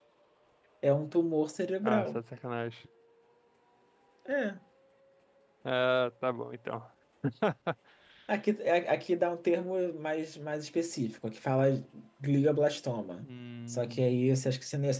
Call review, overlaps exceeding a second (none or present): none